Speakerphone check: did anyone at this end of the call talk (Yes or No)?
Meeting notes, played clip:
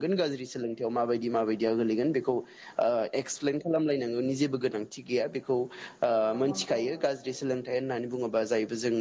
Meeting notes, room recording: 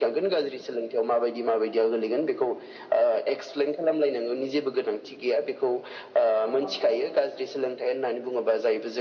No